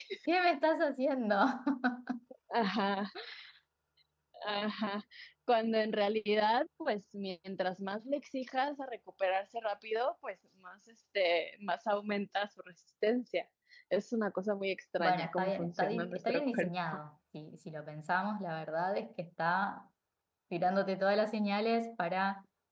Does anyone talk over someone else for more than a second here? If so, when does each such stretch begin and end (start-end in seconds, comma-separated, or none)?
15.0-17.0